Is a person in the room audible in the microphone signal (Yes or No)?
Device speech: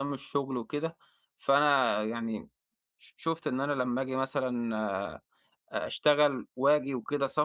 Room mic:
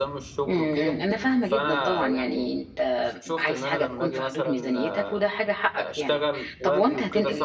Yes